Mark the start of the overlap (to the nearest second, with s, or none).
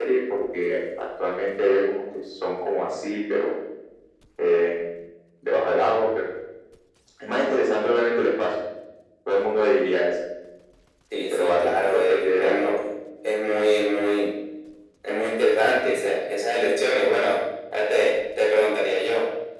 11 s